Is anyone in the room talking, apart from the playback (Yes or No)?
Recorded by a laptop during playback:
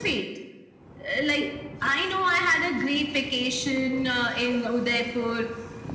No